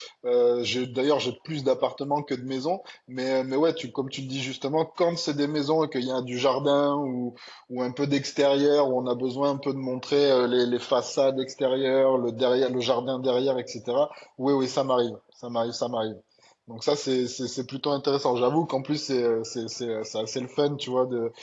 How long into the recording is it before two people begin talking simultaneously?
none

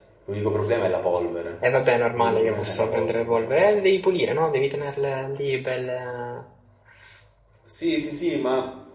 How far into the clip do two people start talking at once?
2 s

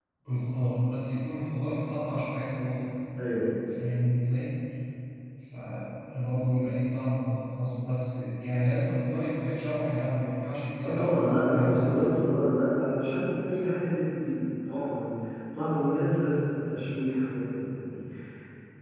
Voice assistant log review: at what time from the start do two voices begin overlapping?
11 s

